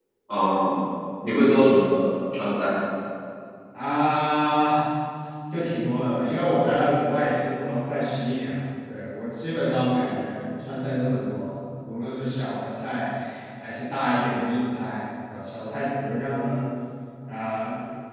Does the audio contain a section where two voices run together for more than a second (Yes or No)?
No